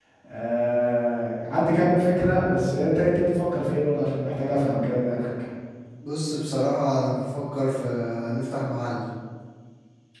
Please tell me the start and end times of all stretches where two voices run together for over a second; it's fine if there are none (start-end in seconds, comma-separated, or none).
none